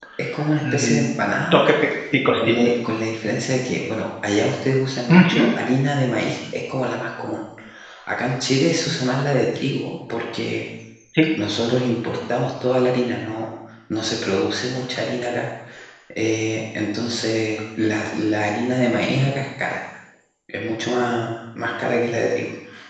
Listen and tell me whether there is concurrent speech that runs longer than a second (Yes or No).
No